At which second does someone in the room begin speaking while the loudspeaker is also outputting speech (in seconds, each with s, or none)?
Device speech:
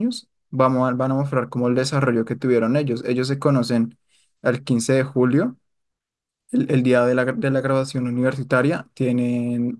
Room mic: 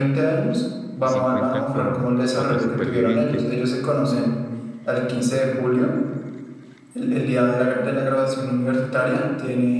1.0 s